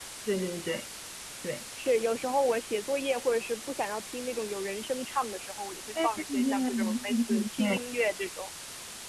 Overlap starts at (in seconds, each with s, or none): 6.0 s